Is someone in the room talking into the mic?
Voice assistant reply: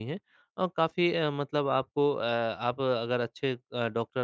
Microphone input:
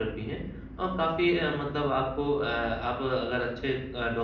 No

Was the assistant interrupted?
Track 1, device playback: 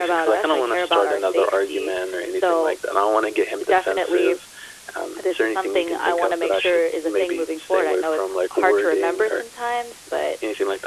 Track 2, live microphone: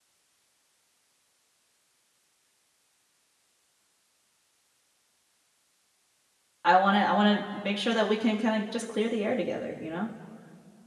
Yes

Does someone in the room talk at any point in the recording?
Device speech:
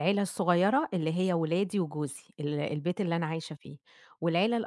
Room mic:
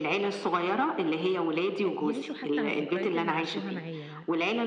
Yes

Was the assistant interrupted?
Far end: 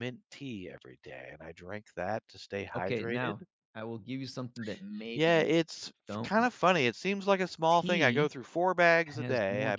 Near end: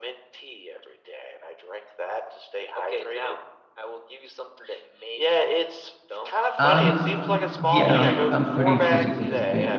Yes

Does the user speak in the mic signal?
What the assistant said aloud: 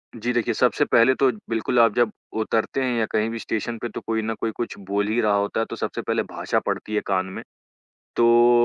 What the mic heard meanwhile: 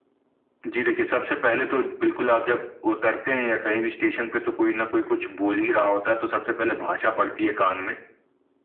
No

